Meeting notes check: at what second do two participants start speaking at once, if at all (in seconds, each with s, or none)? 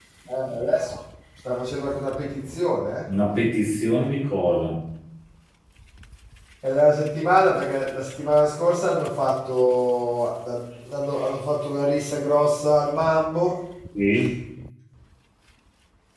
none